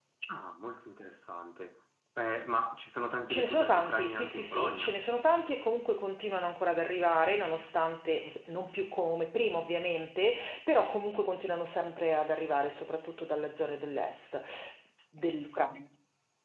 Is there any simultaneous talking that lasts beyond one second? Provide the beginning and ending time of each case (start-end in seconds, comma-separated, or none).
3.3-4.9